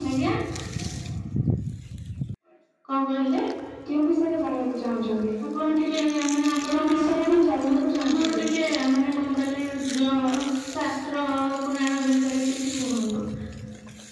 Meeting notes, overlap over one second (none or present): none